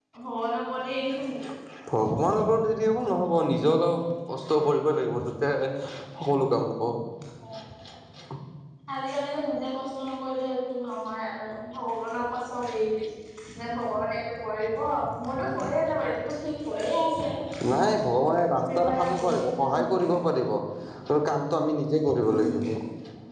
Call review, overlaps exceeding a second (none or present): present